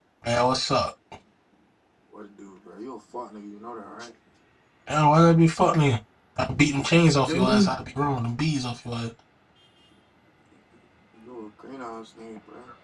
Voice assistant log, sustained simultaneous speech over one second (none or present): none